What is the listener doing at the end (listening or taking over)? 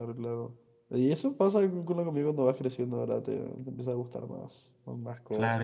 taking over